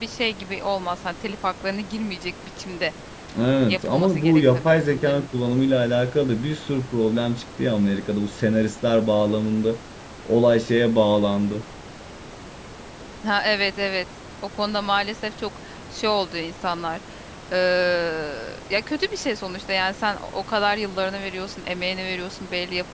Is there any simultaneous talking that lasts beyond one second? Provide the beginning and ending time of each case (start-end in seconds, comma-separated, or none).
3.7-5.3